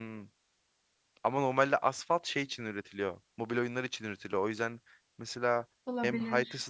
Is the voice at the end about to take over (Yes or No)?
No